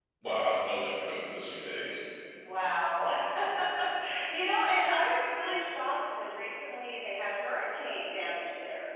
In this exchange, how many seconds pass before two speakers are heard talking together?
none

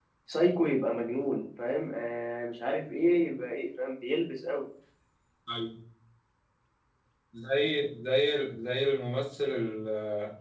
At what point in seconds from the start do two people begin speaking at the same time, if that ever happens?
none

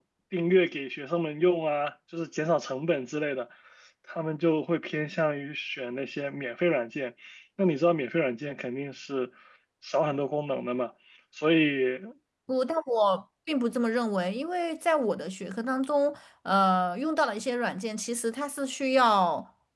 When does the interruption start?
none

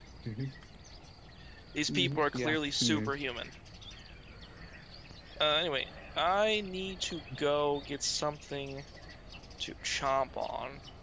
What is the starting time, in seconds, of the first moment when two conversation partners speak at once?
2 s

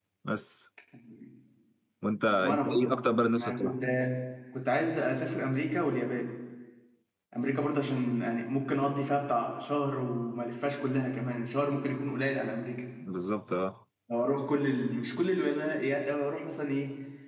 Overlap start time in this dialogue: 2 s

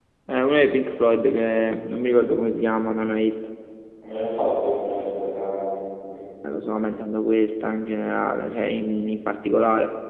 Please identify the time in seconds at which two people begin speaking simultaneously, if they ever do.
none

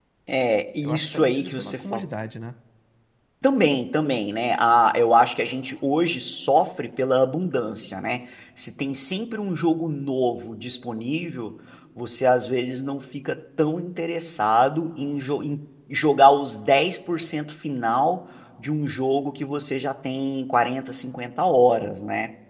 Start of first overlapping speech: 1 s

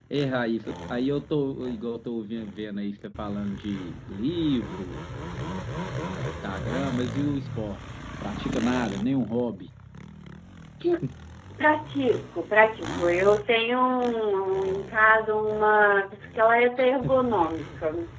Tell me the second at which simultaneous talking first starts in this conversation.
none

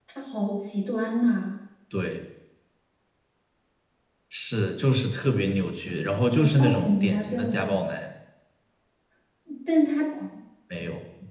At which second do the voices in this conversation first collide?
6 s

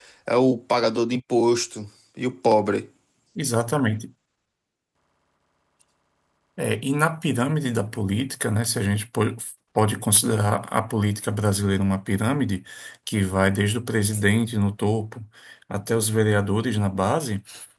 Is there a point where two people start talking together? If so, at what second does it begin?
none

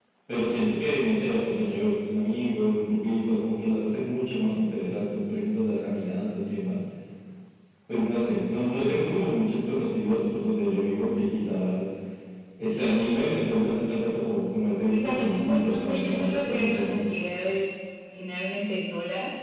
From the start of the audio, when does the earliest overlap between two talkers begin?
15 s

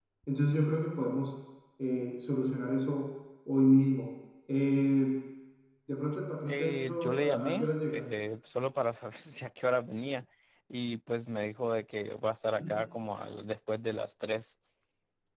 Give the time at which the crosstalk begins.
6 s

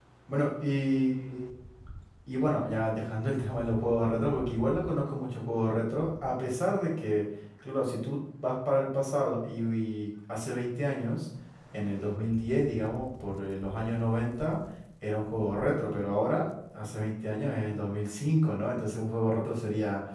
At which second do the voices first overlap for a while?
none

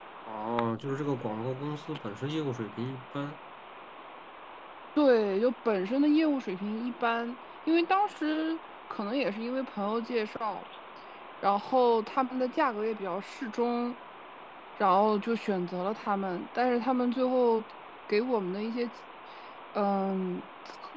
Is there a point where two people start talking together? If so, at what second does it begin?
none

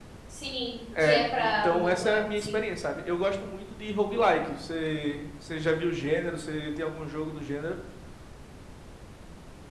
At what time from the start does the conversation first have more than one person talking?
1 s

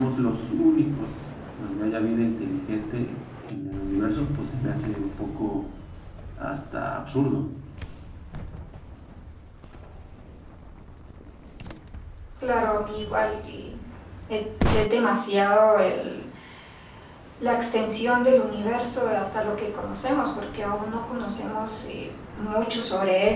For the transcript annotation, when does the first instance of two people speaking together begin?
none

